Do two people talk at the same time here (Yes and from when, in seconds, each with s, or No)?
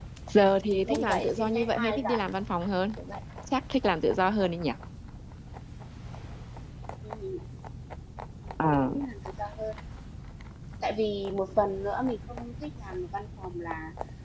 Yes, from 0.7 s